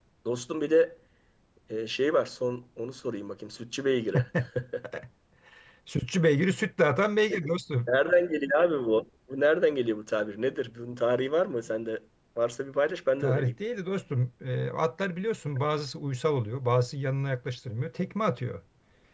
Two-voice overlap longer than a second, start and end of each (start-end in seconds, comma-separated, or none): none